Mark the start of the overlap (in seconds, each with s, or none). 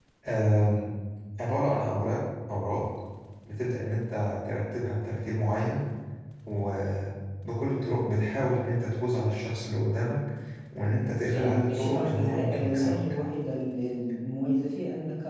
11.2 s